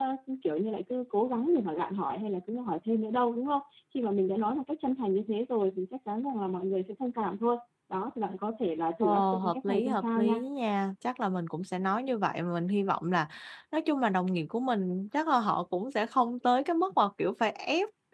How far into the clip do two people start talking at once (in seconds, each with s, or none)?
9.0 s